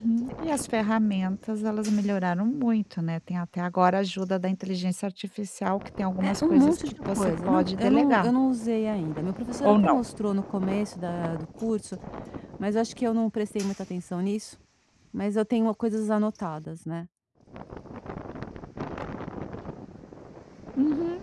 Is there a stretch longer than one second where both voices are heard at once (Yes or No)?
Yes